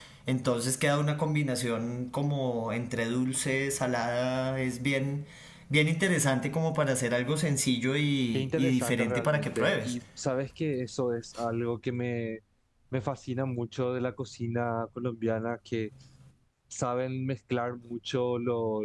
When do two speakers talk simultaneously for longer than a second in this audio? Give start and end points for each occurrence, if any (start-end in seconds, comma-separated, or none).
8.3-9.9